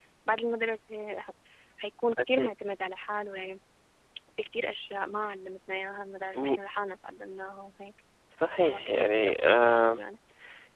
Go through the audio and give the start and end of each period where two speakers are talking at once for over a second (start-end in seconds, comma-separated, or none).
8.6-10.0